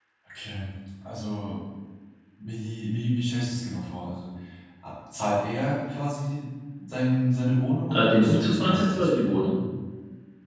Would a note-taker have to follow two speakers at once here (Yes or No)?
Yes